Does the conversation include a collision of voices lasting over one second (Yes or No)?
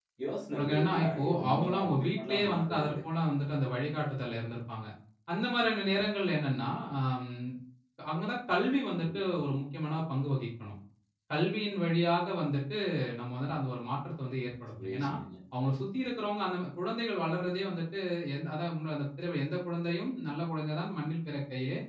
Yes